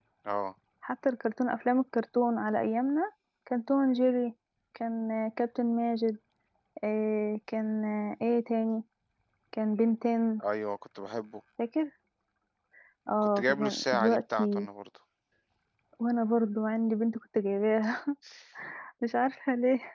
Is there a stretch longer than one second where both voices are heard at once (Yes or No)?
Yes